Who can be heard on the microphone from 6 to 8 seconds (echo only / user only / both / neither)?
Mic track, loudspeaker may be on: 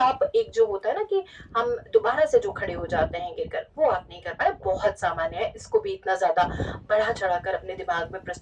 echo only